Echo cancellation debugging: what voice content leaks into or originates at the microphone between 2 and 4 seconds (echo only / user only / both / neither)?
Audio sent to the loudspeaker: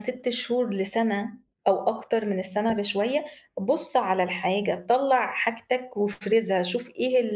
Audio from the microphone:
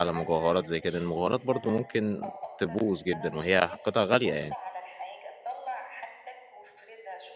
both